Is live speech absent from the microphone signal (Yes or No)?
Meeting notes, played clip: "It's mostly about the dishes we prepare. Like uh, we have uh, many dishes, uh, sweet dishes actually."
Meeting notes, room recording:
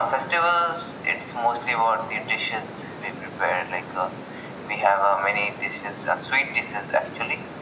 Yes